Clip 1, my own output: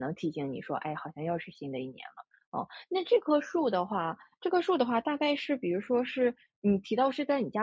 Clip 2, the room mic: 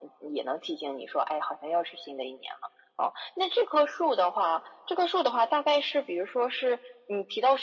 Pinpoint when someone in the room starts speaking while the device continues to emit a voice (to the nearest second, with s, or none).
none